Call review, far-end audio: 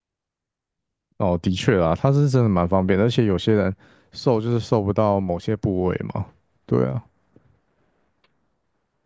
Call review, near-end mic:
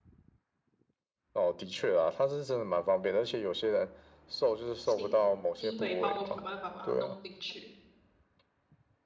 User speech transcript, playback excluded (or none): 请医美帮我想办法把它弄进去。